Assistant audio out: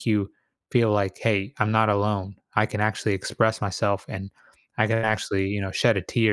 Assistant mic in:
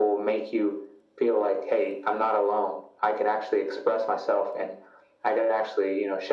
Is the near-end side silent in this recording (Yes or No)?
Yes